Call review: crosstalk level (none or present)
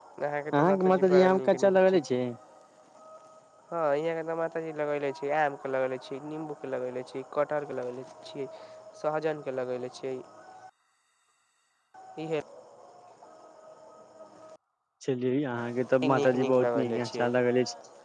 present